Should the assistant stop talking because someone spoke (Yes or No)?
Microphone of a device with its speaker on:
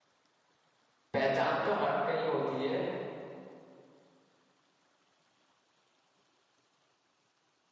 Yes